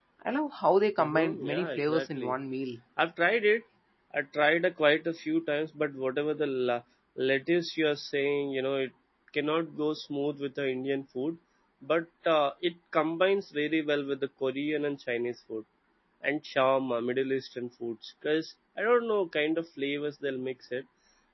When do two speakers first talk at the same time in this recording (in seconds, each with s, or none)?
1.0 s